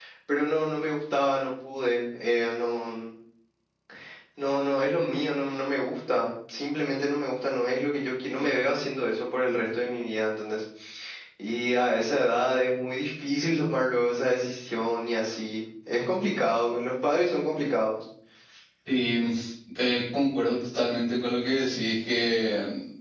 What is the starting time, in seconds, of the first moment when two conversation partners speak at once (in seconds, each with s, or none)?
none